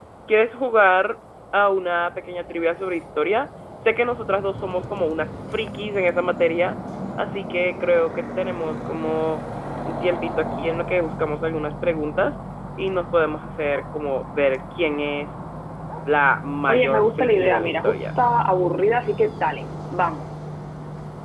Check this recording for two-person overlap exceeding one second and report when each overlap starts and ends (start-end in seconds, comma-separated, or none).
16.7-18.1